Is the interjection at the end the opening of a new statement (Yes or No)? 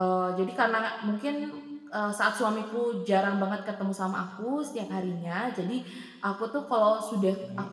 No